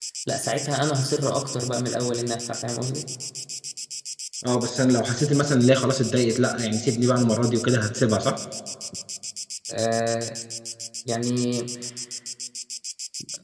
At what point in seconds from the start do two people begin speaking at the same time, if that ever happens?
none

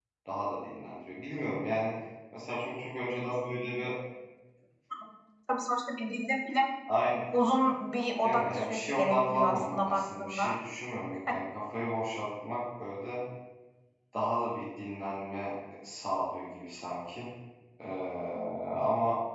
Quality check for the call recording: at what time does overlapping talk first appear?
8.2 s

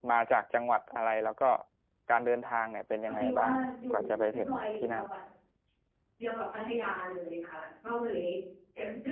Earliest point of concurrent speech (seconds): 3.1 s

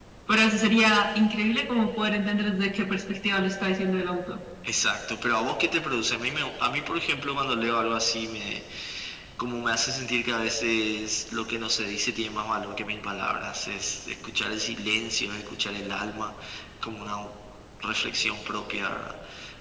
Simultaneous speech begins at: none

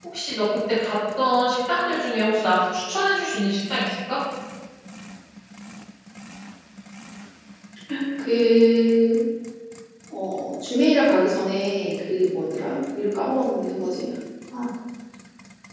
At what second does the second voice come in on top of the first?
none

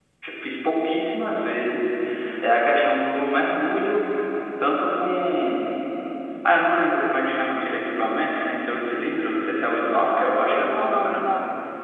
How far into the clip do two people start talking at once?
9.7 s

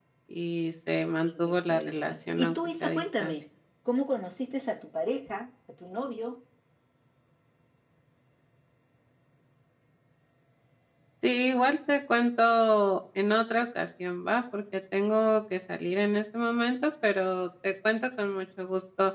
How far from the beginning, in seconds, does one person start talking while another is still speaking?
1.3 s

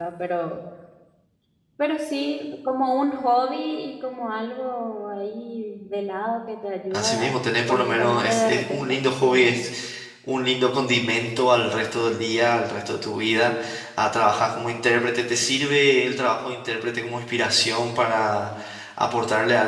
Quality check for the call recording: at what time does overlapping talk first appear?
6.9 s

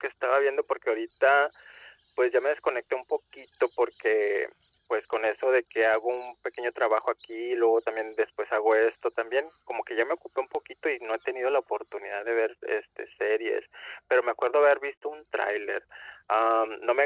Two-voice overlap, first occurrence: none

